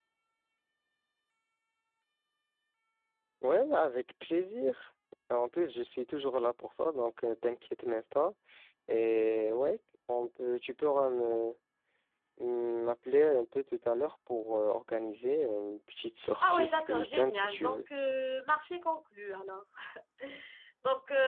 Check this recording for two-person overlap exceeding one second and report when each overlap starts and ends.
16.4-17.9

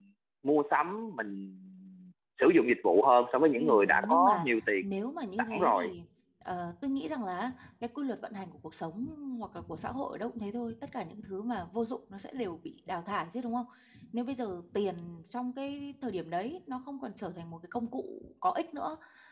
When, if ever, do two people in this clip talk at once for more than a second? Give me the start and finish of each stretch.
3.6-4.8

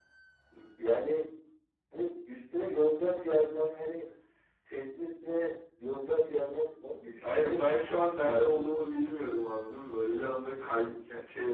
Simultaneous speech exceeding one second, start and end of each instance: 7.2-8.6

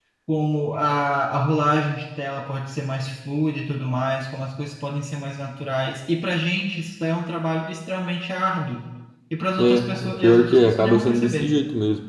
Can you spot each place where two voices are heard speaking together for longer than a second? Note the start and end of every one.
9.6-11.5

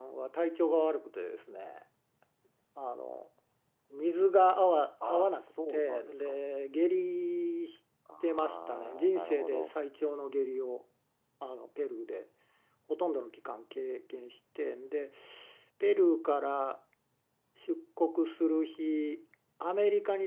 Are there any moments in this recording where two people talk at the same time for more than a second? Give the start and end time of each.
5.1-6.3, 8.2-9.7

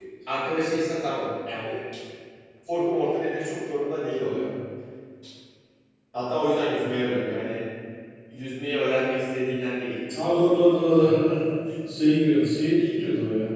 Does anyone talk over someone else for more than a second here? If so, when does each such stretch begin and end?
none

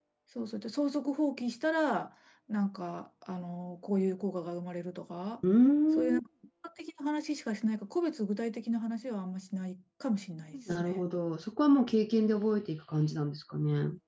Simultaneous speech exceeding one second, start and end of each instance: none

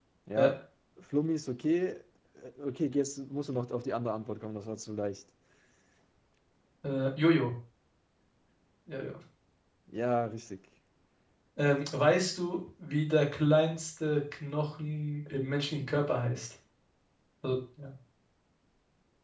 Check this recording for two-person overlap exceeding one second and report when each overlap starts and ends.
none

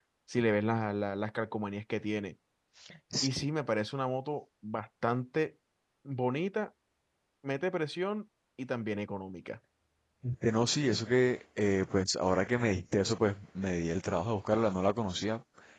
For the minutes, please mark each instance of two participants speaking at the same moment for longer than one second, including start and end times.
none

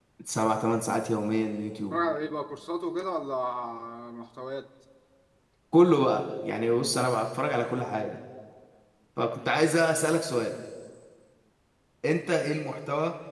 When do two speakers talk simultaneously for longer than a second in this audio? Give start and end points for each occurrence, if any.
none

